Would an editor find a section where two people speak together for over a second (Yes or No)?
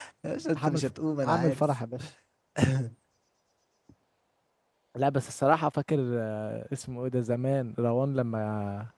No